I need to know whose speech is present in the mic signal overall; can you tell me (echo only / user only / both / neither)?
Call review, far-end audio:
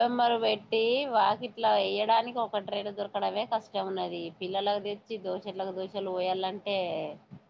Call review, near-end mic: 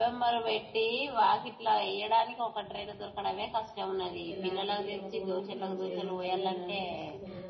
both